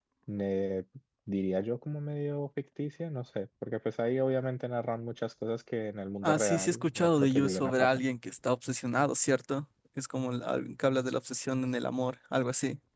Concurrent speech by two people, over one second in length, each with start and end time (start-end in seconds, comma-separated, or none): 6.2-8.0